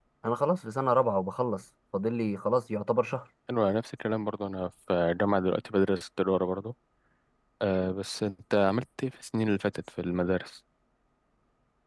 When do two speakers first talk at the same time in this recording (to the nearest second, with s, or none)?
none